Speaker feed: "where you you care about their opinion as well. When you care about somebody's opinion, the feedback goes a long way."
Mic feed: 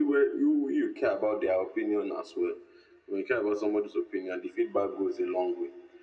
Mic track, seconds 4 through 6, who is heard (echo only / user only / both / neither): echo only